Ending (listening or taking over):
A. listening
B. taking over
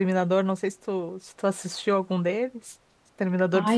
B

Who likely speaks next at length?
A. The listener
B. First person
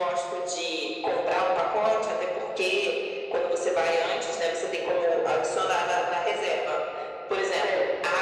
B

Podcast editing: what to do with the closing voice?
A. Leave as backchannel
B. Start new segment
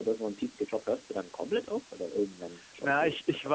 B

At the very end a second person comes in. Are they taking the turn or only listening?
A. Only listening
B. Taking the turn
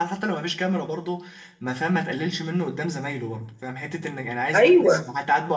A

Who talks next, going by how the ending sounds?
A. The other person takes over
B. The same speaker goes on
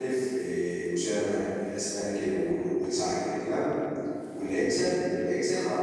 B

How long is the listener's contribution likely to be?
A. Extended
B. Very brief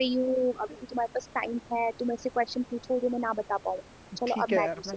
A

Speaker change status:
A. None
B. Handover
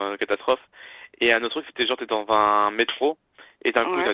A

